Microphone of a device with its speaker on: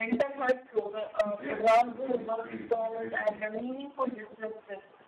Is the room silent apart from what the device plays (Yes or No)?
No